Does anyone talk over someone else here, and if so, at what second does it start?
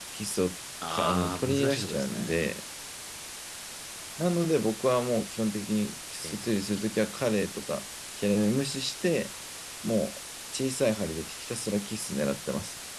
0.9 s

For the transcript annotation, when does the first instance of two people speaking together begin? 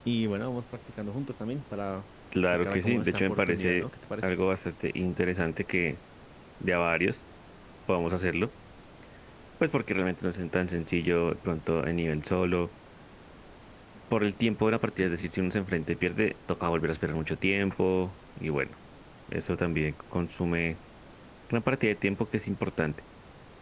2.3 s

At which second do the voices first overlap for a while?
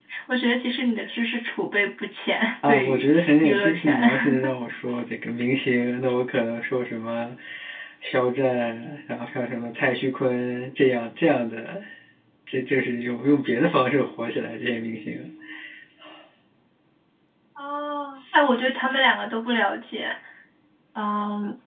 2.6 s

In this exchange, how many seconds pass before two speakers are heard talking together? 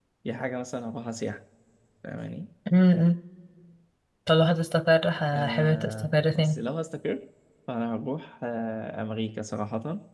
5.3 s

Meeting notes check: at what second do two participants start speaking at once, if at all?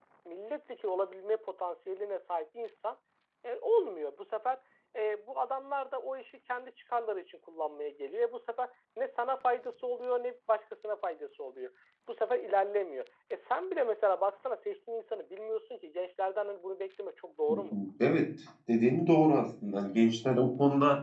none

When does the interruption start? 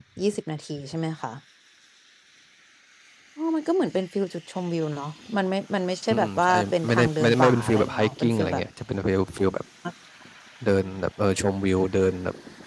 6.1 s

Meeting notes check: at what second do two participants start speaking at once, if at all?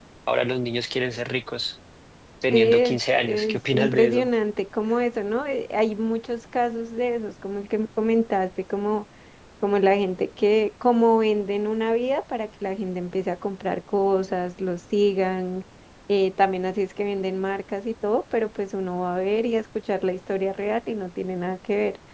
2.5 s

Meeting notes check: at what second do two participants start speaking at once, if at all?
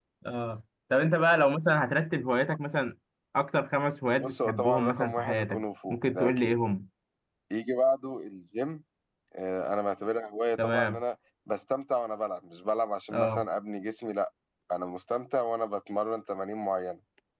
4.2 s

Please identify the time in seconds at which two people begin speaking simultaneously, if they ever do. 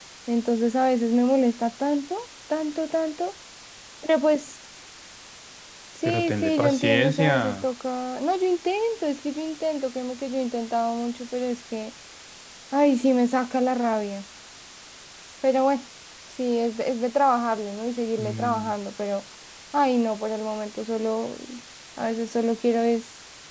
6.0 s

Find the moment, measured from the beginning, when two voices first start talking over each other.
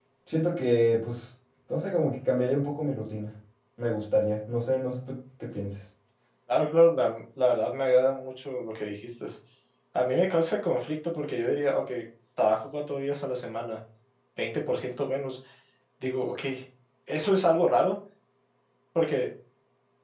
none

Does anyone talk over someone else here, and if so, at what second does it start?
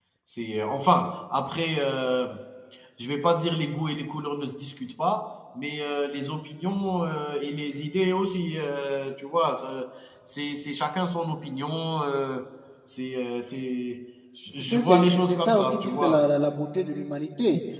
14.6 s

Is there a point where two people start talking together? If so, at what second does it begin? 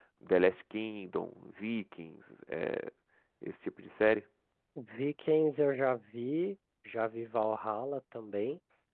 none

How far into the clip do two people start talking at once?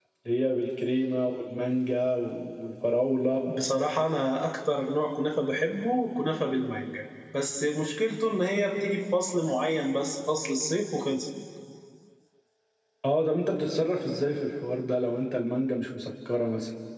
none

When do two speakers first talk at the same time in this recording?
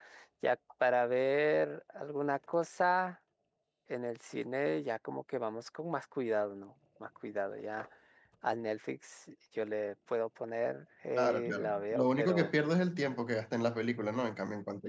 11.2 s

